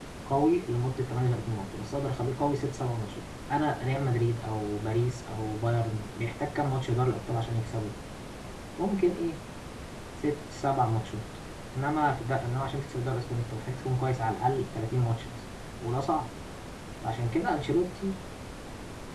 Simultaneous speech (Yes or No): No